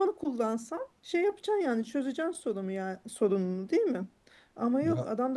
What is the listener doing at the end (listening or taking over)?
listening